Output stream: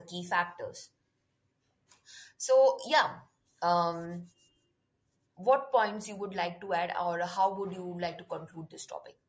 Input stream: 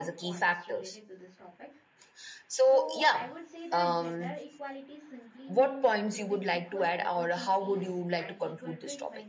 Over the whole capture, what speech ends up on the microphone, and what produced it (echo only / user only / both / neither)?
both